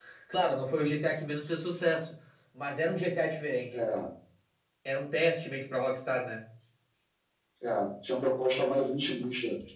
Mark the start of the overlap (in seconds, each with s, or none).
none